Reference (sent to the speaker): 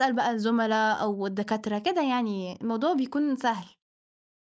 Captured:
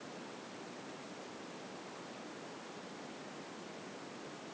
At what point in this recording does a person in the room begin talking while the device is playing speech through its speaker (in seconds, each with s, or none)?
none